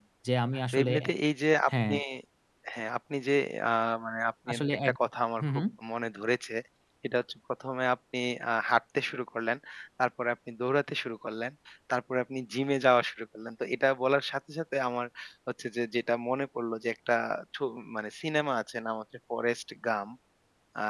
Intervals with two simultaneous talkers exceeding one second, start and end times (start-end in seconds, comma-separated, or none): none